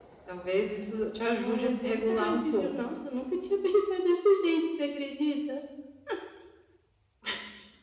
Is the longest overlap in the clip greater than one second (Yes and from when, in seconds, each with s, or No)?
Yes, from 1.4 s